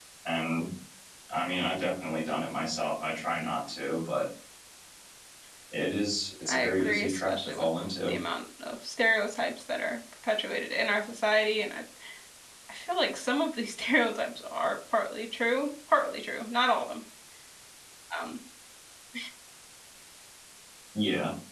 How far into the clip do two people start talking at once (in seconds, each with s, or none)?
6.5 s